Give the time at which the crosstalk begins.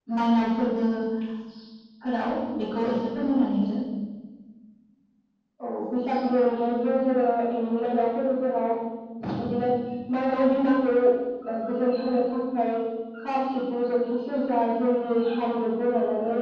none

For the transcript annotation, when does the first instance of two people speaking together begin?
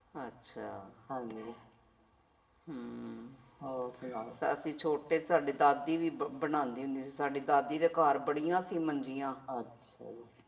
none

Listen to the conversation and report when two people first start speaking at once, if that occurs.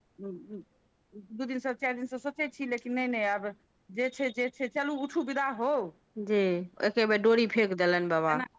none

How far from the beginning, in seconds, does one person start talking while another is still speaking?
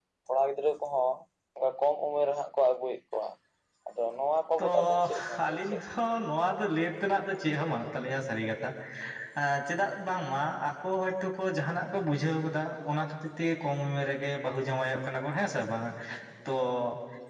4.6 s

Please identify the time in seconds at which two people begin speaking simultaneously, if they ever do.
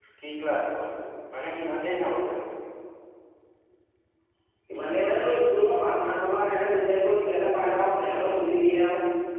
none

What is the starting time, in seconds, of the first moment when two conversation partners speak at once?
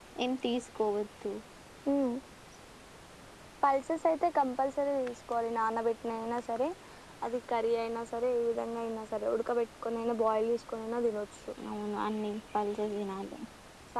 none

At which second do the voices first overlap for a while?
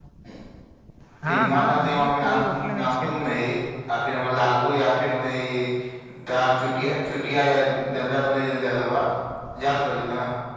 1.2 s

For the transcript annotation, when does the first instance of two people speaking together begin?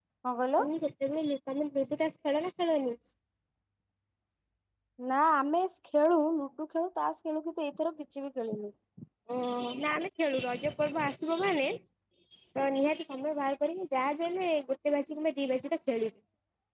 none

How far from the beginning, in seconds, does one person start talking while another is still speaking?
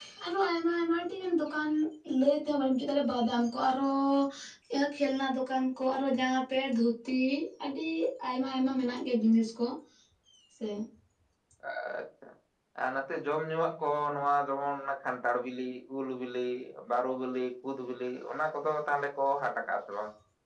none

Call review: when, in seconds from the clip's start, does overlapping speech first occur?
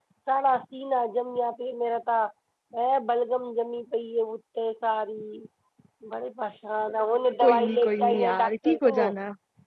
7.4 s

